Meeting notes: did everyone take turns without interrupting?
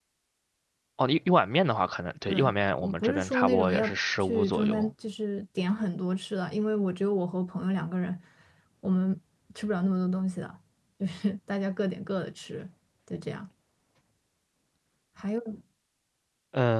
No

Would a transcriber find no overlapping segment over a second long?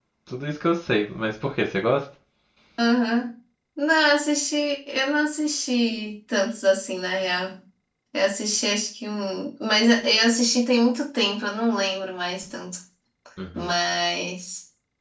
Yes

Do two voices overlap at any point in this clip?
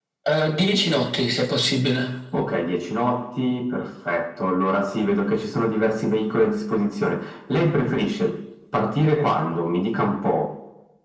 No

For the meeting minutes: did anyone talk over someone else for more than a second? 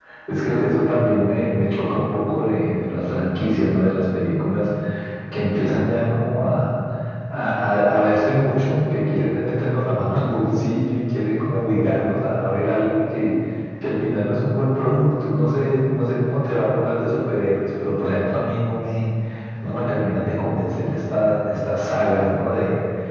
No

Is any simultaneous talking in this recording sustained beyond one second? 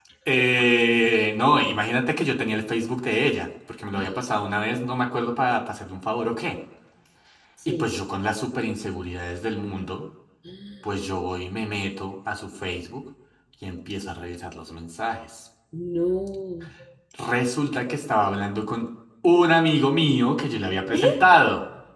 No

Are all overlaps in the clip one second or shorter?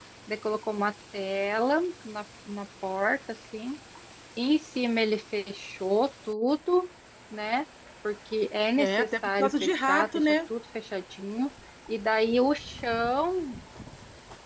No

